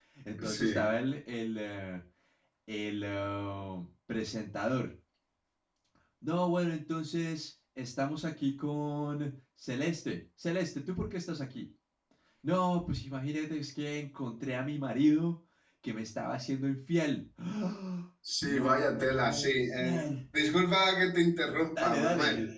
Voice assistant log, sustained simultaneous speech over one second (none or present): present